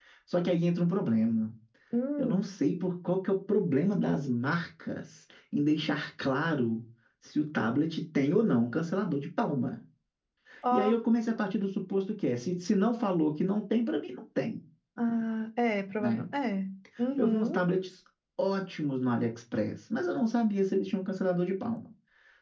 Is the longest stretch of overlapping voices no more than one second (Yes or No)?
Yes